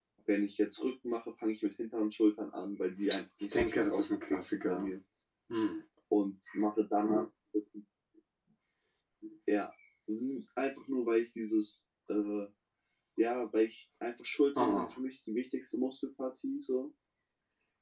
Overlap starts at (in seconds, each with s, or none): 3.5 s